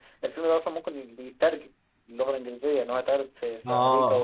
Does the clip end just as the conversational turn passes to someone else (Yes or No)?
Yes